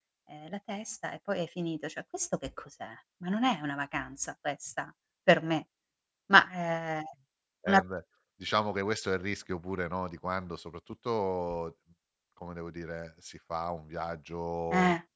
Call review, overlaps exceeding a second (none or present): none